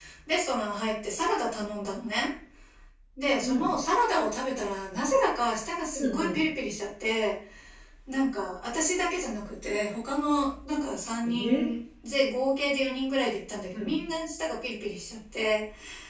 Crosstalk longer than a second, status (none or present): none